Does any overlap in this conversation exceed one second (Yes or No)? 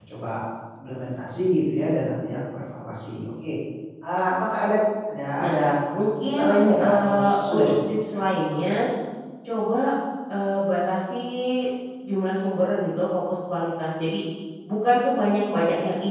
Yes